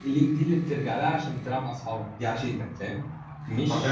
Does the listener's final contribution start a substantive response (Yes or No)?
Yes